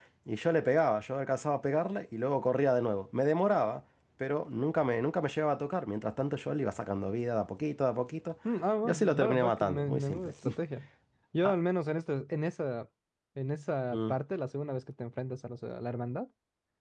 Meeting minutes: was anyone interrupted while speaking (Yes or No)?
Yes